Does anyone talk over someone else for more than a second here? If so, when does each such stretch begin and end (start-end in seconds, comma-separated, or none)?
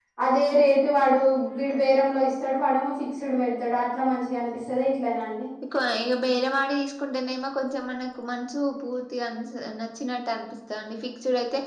none